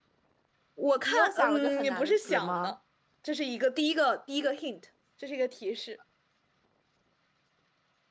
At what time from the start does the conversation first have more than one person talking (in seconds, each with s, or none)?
0.9 s